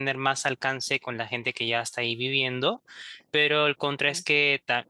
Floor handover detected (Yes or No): No